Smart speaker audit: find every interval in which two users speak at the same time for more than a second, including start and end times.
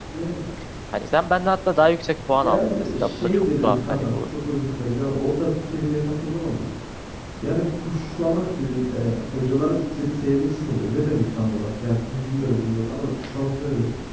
2.4-4.2

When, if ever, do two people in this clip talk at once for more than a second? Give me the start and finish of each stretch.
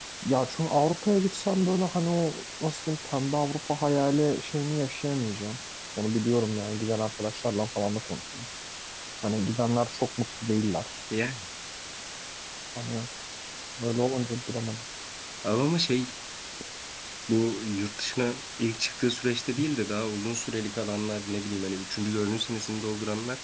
none

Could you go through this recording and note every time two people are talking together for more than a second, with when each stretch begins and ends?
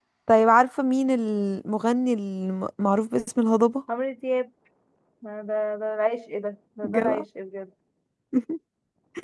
none

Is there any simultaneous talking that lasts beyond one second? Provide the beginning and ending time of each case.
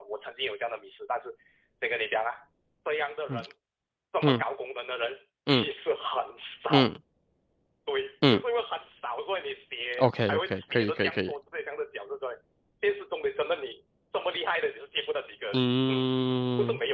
10.0-11.3

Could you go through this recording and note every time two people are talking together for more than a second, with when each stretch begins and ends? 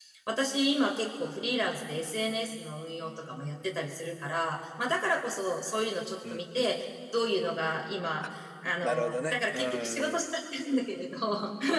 8.8-10.3

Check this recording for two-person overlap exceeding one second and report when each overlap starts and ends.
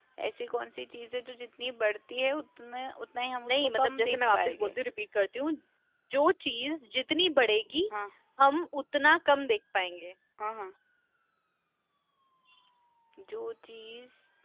3.4-4.7

